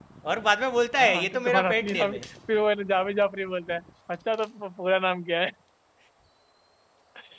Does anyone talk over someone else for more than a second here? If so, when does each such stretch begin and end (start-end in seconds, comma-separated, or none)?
1.0-2.2